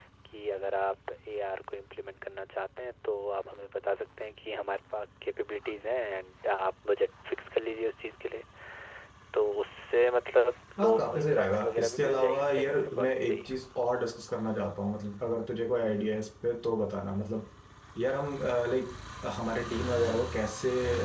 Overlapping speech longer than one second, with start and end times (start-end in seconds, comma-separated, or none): 10.8-13.5